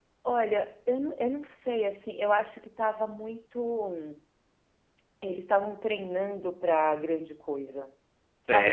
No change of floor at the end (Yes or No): No